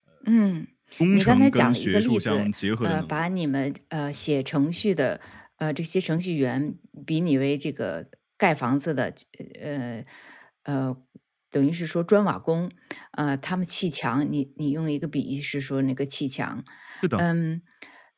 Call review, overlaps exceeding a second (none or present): present